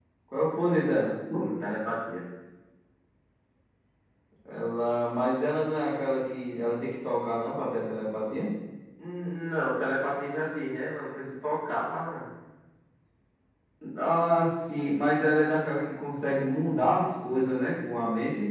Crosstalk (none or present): none